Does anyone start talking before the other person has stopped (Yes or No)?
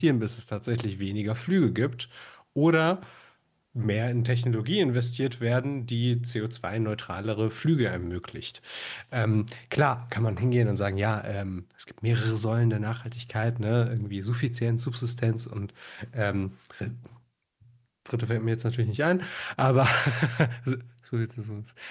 No